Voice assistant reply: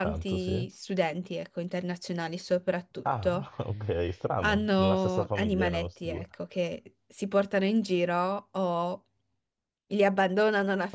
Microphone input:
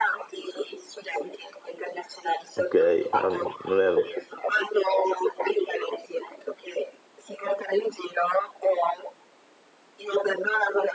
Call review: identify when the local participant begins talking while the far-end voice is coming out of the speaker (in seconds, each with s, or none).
2.5 s